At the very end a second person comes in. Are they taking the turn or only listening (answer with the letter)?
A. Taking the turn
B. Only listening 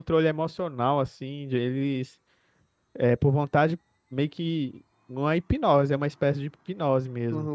A